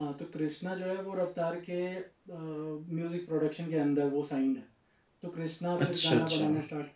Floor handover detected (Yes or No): No